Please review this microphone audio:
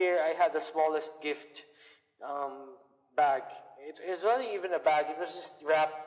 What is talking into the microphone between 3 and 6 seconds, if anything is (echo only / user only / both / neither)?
echo only